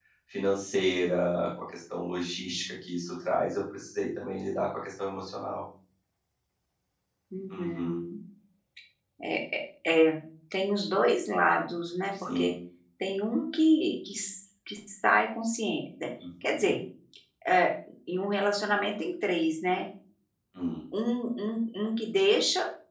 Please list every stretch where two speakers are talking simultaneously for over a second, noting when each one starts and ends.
none

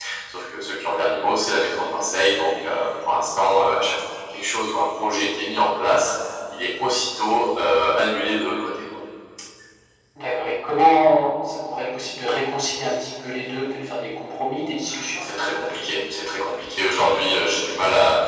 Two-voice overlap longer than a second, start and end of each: none

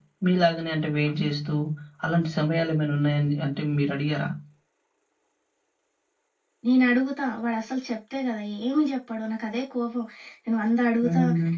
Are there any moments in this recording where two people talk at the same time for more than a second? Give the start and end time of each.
none

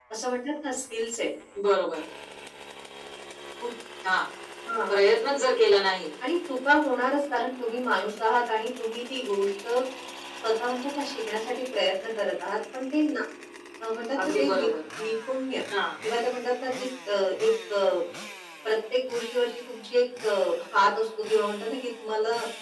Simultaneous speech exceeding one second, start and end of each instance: none

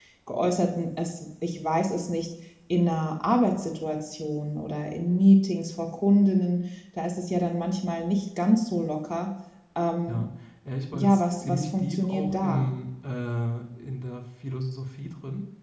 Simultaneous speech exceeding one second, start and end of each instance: 10.9-12.7

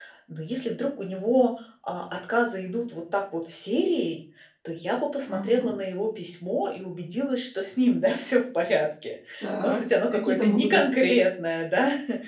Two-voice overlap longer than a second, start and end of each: 9.6-10.9

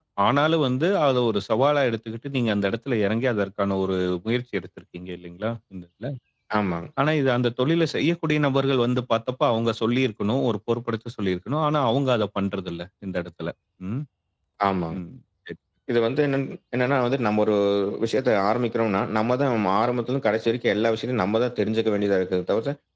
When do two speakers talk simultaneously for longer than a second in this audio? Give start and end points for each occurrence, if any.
none

